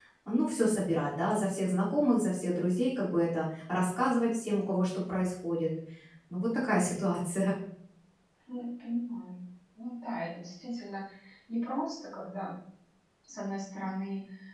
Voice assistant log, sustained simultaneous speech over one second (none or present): none